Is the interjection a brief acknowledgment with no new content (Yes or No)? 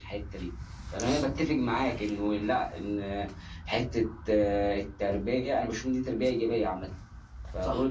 Yes